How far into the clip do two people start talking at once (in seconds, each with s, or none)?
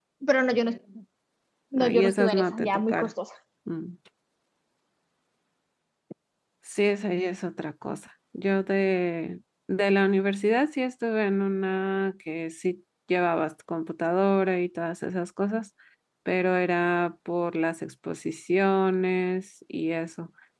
1.8 s